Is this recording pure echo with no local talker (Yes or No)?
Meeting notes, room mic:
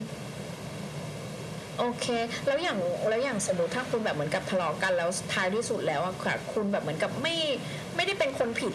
Yes